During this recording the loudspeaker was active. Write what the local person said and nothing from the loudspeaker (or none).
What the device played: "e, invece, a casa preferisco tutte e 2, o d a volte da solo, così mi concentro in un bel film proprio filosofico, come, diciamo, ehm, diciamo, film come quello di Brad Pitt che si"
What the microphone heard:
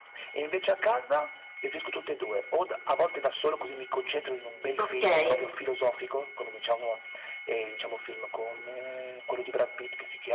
Okay.